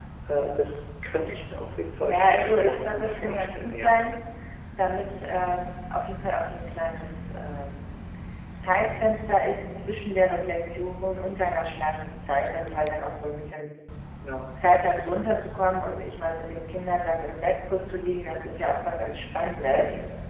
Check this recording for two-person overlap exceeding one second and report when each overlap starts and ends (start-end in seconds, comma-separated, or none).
2.0-4.0